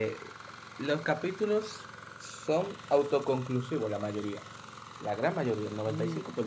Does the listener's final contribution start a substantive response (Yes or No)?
Yes